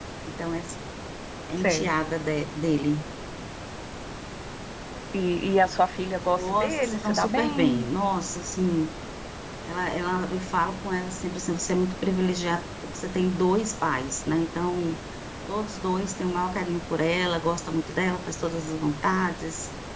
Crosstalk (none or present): present